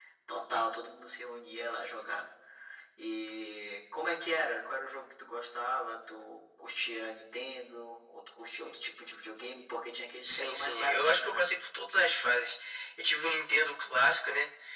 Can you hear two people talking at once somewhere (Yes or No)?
Yes